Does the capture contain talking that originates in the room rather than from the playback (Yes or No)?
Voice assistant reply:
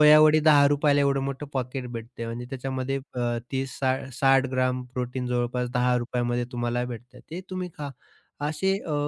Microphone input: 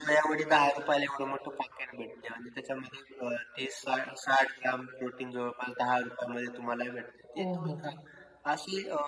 Yes